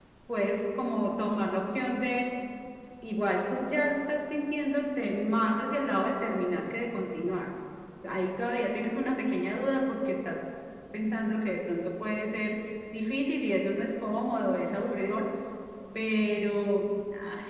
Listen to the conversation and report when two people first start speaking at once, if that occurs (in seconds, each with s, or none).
none